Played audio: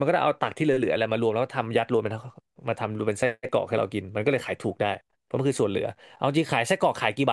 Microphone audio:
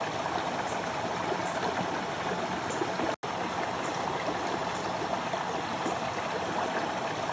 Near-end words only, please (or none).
none